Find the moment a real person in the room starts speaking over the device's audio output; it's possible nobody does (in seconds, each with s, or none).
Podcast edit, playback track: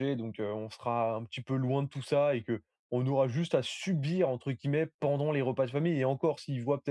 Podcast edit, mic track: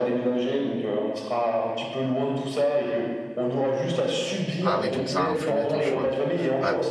4.6 s